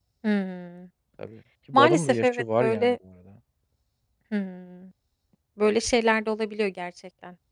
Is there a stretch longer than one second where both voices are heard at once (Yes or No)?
Yes